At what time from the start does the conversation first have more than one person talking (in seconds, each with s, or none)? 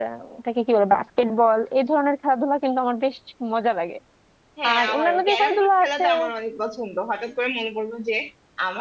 4.7 s